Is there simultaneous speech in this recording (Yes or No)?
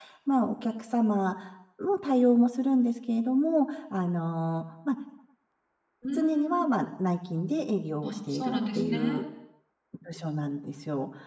Yes